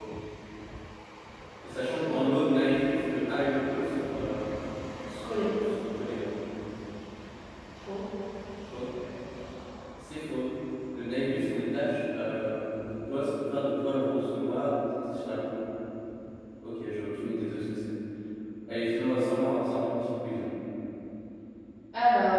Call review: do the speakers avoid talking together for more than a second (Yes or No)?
Yes